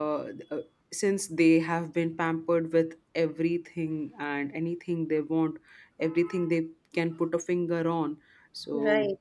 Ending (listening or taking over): listening